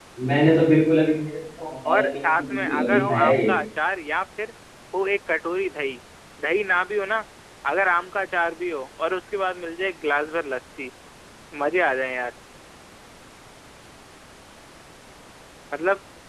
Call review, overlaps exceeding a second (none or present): present